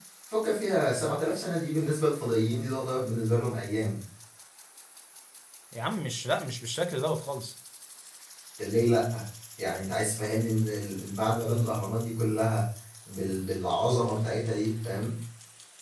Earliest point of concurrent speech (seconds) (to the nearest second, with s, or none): none